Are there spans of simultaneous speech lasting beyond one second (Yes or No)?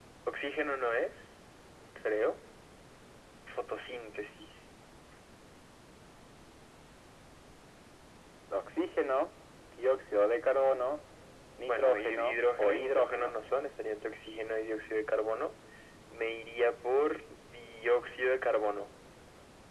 Yes